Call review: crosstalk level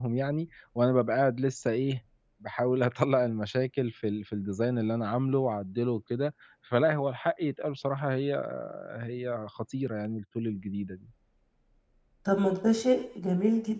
none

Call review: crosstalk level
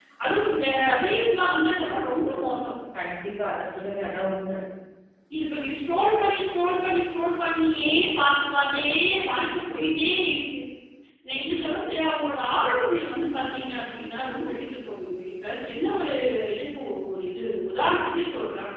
none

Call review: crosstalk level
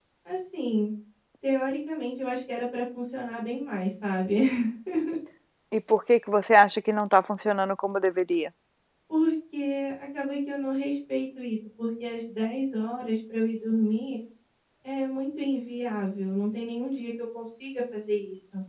none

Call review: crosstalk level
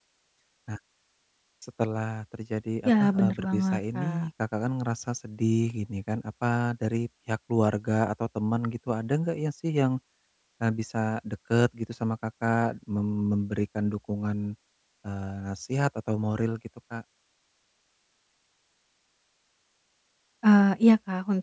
present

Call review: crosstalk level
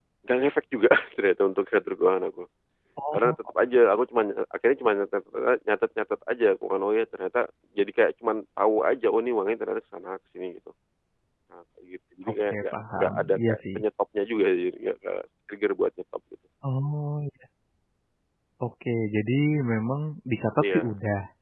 present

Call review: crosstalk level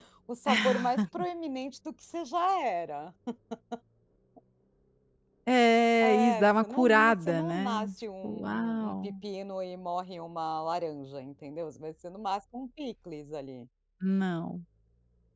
present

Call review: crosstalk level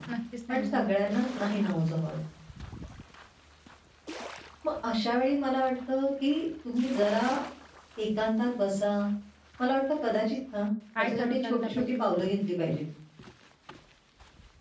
present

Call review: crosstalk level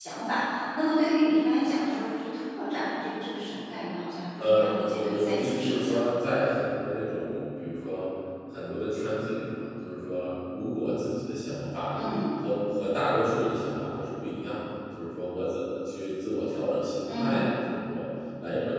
present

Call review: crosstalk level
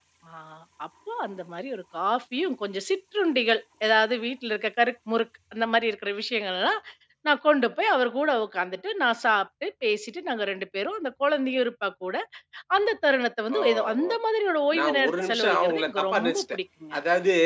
present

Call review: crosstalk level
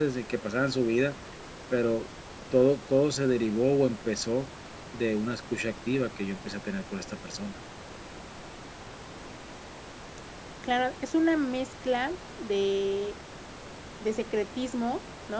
none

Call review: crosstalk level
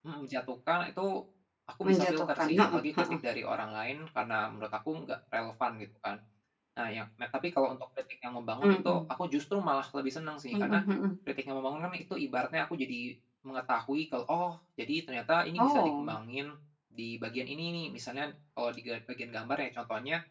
present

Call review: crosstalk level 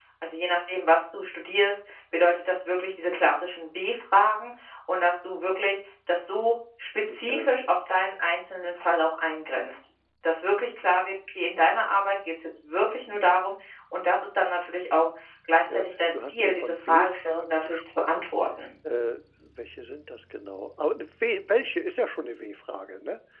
present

